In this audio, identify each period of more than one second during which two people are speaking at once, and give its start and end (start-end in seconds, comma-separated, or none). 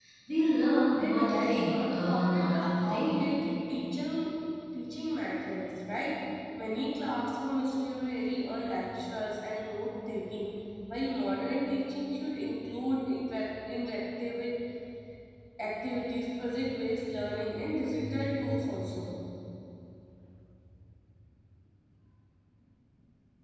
1.0-3.2